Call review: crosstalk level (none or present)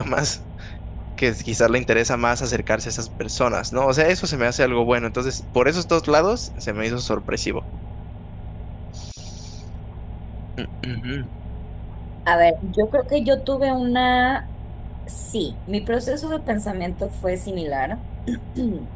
none